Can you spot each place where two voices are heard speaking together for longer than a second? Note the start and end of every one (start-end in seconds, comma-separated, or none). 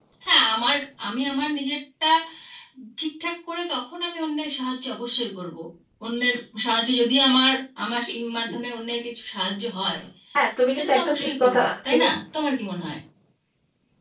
10.7-12.1